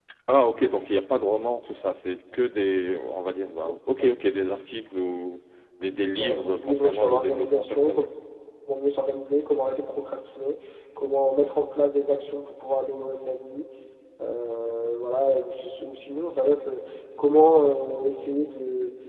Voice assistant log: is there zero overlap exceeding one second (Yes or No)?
No